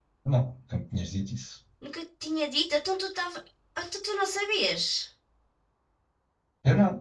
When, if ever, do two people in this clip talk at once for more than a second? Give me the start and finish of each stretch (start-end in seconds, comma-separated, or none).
none